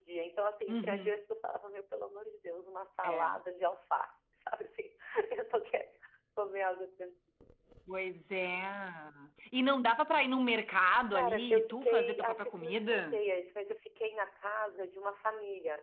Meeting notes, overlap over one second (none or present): present